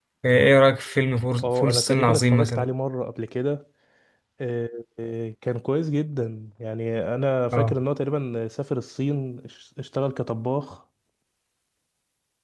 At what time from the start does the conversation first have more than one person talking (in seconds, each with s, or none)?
1.4 s